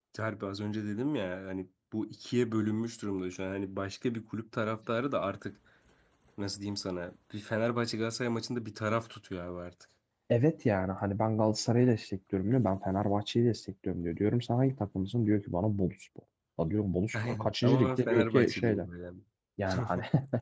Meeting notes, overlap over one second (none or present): present